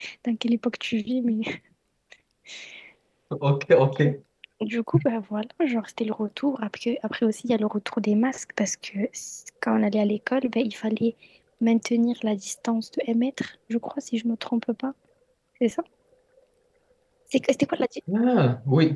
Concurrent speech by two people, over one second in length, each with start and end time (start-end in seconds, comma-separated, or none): none